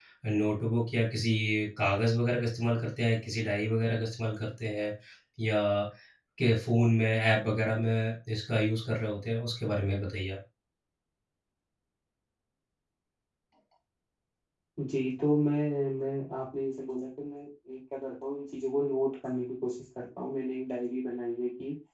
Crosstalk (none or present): none